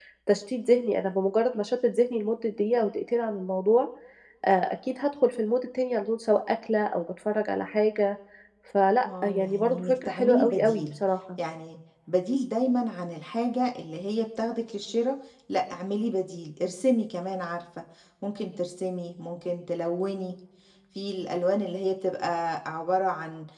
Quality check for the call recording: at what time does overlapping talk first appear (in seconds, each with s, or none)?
9.1 s